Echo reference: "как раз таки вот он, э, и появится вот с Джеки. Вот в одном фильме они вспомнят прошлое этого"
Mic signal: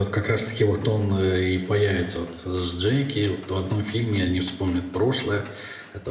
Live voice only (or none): none